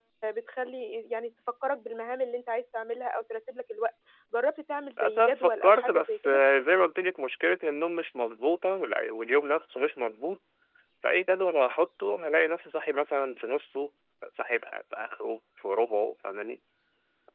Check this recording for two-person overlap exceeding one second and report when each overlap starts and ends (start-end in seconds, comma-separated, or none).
5.0-6.4